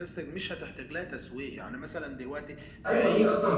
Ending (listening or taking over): taking over